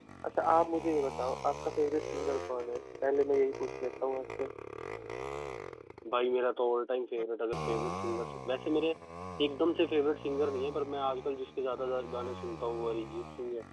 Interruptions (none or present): none